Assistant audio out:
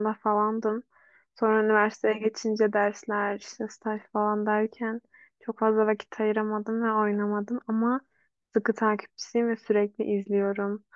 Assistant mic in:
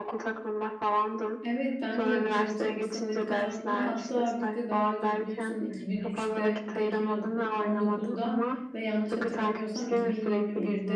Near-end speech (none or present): present